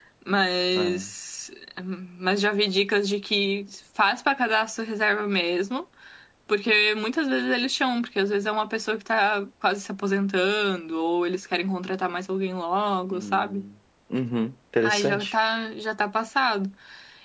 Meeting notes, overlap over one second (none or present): none